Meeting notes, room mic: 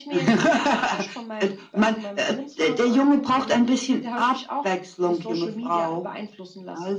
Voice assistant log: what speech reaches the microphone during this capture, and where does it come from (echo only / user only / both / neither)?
echo only